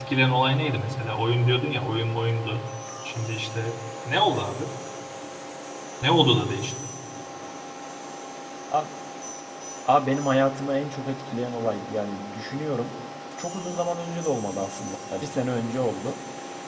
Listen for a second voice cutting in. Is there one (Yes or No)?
No